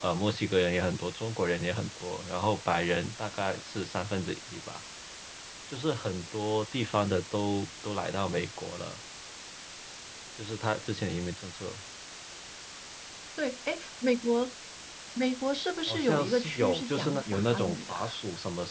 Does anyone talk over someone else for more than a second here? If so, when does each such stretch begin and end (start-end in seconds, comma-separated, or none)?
15.9-18.1